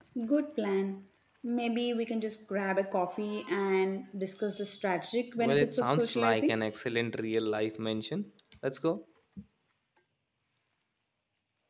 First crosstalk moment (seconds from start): 5.4 s

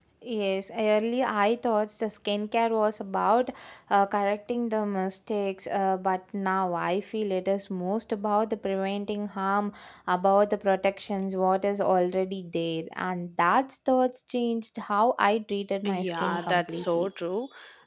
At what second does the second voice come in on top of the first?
15.8 s

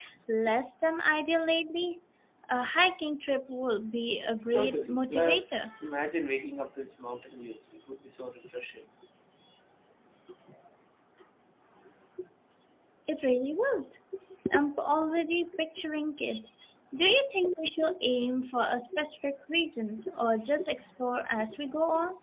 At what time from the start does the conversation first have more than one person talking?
4.5 s

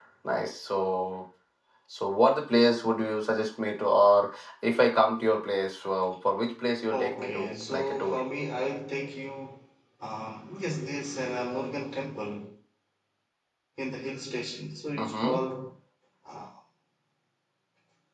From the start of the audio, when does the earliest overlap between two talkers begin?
6.9 s

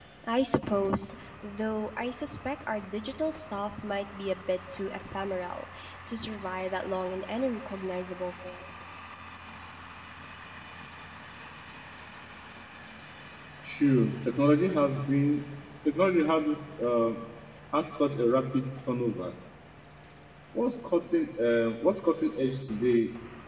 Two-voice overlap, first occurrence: none

